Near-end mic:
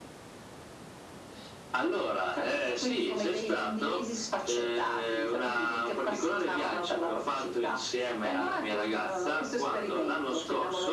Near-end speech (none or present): none